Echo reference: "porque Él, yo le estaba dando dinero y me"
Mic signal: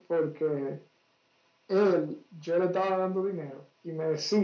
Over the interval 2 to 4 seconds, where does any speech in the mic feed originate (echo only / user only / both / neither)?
echo only